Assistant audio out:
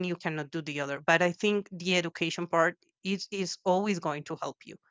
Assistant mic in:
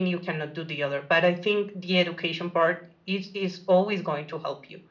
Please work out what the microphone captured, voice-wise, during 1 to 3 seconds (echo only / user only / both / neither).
echo only